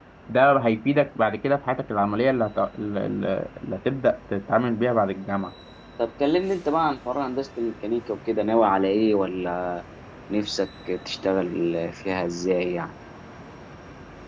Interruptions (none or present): none